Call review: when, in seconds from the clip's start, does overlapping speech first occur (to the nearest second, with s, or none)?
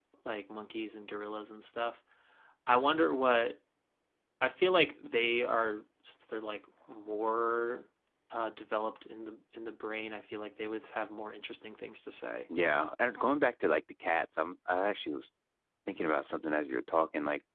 none